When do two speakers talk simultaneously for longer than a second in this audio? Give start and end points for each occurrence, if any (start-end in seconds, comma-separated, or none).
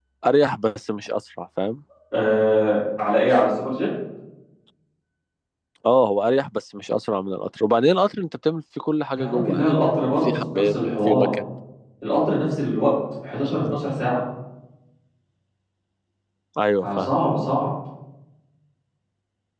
9.1-11.3